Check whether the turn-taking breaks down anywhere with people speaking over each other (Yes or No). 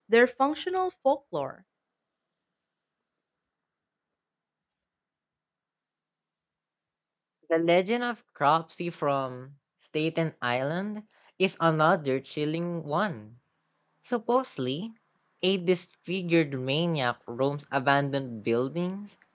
No